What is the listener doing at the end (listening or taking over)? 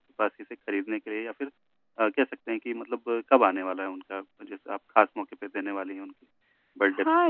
taking over